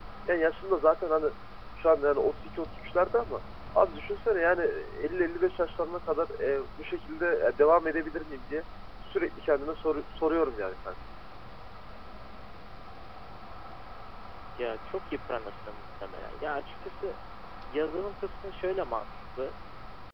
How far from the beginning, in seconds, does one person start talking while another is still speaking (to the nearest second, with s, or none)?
none